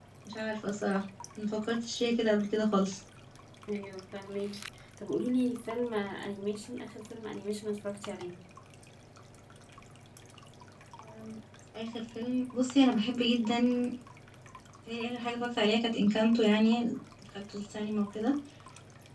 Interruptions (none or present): none